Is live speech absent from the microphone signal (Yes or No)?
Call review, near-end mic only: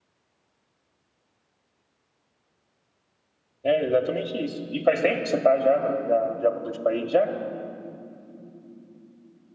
No